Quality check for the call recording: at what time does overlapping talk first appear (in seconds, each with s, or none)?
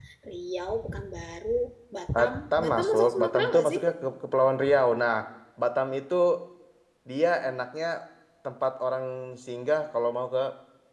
2.1 s